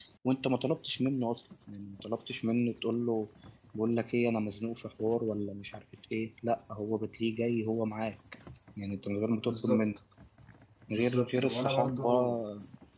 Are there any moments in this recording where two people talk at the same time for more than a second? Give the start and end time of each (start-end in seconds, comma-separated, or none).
10.9-12.1